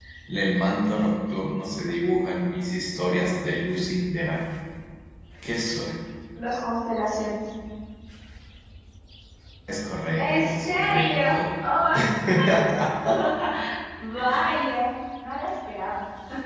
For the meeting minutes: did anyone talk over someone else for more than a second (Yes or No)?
Yes